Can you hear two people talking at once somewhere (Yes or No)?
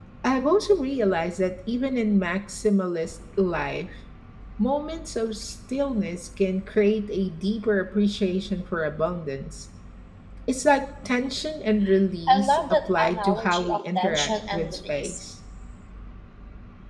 Yes